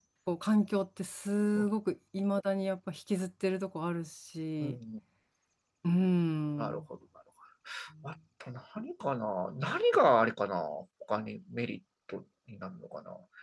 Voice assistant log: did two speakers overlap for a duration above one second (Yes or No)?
No